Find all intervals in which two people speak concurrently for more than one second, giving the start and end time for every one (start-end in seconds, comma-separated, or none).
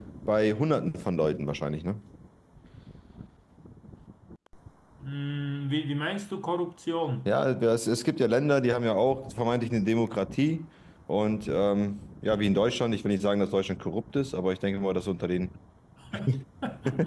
none